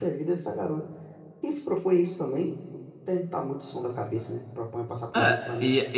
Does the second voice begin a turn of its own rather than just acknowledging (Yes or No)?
Yes